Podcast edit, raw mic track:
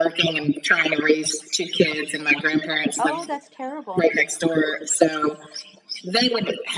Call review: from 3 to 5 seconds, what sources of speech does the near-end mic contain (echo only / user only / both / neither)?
both